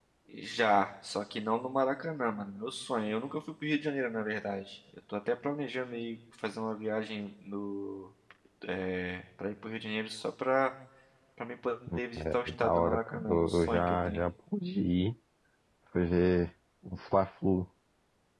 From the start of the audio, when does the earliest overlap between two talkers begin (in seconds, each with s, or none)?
12.3 s